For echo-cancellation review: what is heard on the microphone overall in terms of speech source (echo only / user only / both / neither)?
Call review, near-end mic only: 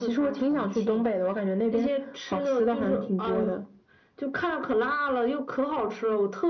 echo only